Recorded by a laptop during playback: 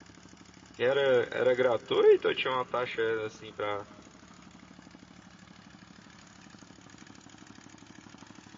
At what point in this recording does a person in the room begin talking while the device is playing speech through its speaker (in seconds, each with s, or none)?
0.8 s